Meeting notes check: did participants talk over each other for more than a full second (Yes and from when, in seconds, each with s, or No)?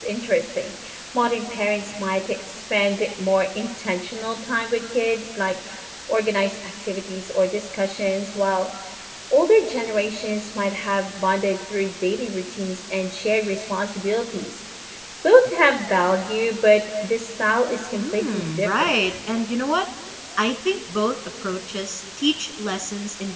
Yes, from 17.9 s